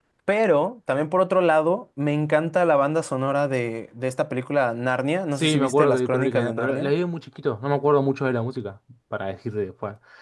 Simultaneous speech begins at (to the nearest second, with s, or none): 5 s